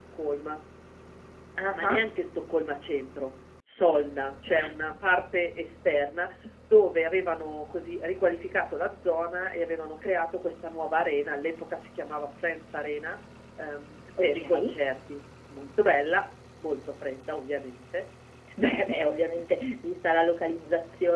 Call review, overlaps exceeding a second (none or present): none